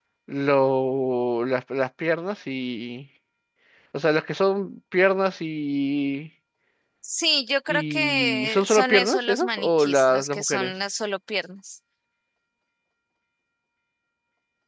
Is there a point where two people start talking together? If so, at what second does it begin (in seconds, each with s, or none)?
7.7 s